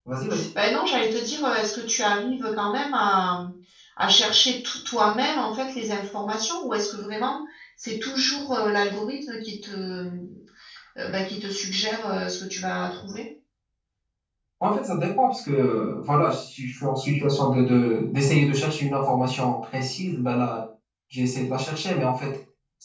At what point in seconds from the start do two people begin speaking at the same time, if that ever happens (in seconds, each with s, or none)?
none